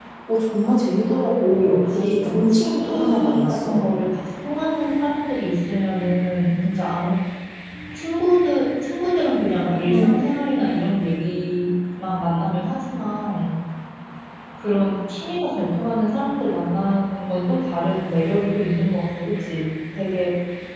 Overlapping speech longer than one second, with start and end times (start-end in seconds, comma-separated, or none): 1.4-3.8